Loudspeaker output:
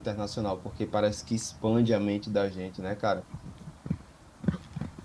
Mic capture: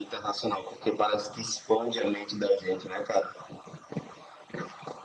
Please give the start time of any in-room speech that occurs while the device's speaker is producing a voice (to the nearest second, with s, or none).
none